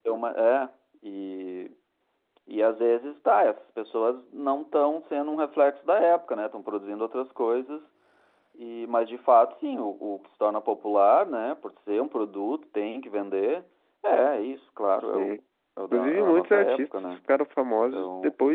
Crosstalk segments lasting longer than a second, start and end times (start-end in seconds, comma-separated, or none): 15.9-17.2